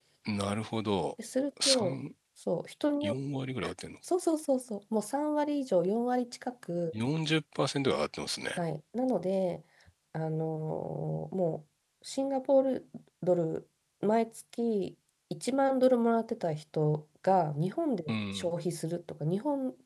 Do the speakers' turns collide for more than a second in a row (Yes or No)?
No